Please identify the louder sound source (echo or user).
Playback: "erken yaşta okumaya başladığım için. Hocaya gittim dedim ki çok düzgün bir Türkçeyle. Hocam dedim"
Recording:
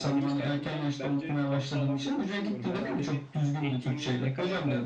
echo